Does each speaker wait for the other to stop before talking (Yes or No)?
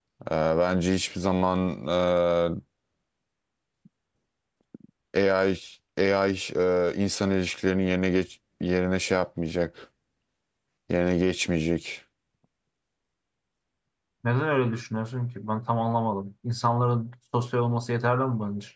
Yes